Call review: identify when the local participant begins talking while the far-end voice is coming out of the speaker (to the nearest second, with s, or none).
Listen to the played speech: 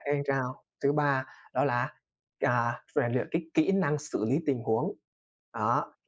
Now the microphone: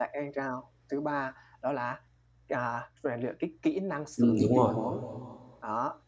4 s